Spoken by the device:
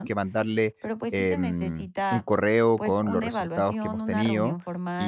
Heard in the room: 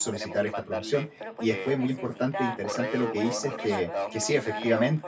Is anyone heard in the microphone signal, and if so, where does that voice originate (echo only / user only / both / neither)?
both